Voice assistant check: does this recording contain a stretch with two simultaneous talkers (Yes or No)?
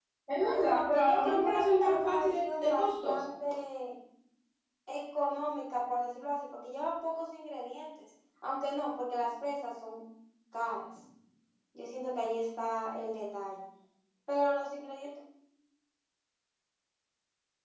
Yes